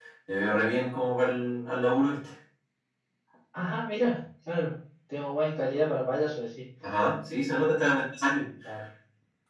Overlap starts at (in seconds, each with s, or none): none